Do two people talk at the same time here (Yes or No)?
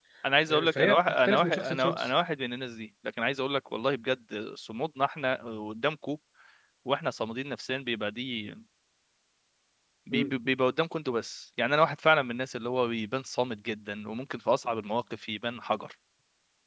Yes